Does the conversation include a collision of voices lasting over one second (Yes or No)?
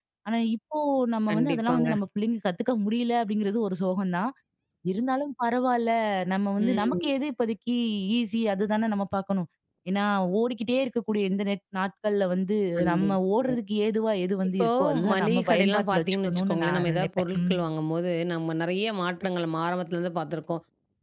Yes